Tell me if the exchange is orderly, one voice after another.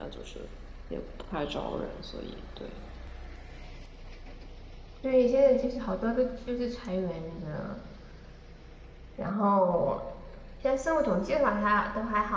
Yes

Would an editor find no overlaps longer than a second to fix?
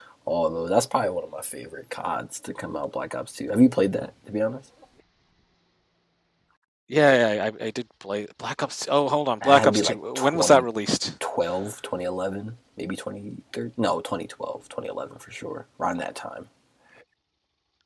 No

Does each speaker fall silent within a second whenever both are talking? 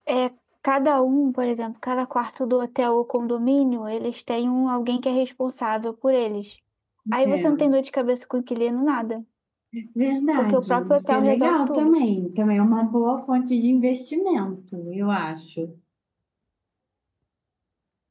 No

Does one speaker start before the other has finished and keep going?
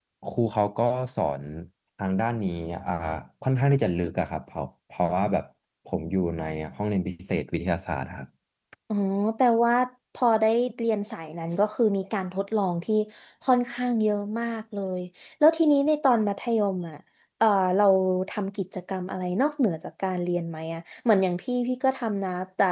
No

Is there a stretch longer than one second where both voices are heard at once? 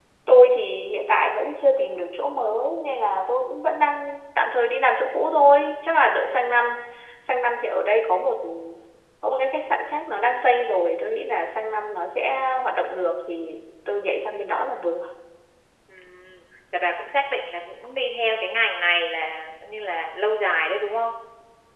No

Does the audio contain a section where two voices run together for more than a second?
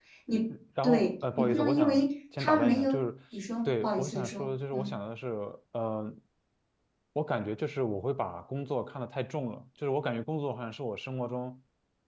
Yes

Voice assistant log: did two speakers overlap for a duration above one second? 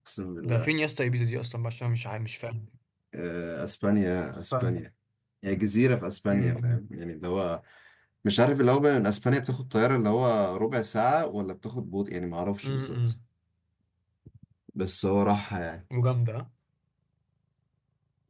No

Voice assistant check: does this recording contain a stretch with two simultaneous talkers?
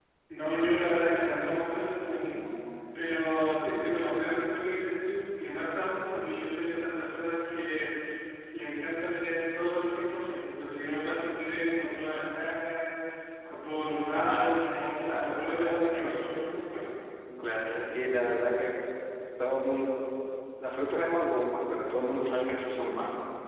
Yes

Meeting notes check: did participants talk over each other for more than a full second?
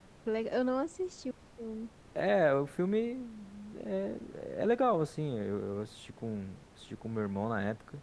No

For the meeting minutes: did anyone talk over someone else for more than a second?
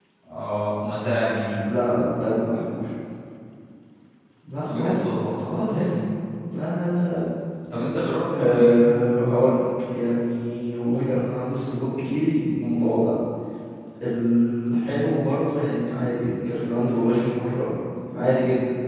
Yes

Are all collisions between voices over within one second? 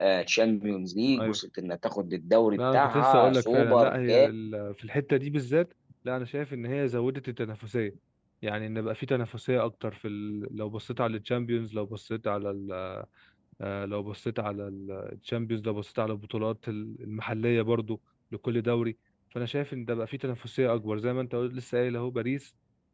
No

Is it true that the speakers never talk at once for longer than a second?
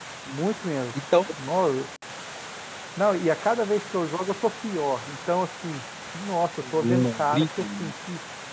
No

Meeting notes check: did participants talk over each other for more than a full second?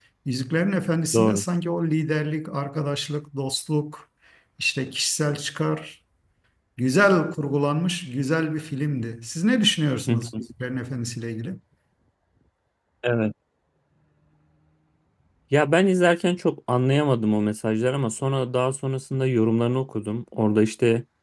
No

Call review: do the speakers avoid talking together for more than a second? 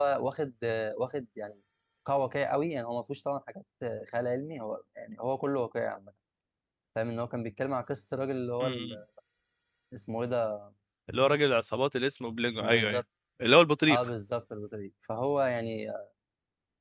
Yes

